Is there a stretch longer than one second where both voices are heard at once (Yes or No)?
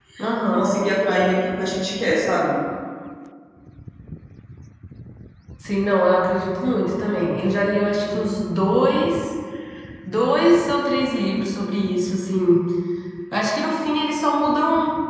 No